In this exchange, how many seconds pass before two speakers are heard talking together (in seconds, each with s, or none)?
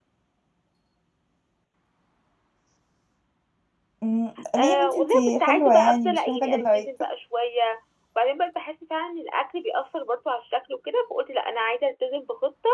4.6 s